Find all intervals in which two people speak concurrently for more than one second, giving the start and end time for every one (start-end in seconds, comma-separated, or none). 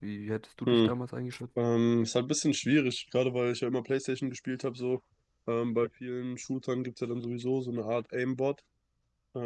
none